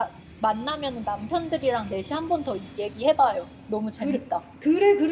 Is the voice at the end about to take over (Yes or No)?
Yes